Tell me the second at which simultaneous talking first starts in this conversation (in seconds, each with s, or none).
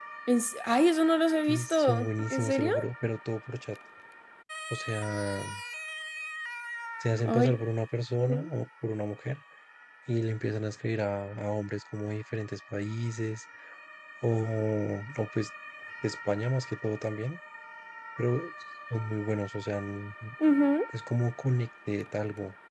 1.5 s